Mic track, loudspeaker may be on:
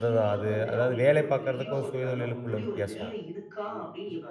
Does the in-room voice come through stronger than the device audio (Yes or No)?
Yes